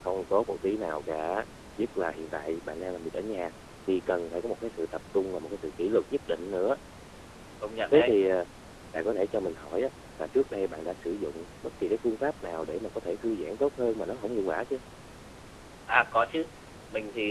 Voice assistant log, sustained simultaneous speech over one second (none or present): none